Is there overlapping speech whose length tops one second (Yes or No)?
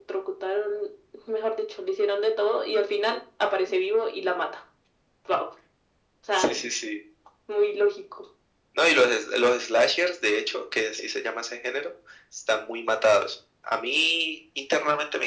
No